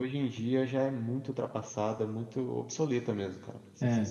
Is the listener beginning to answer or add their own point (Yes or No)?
Yes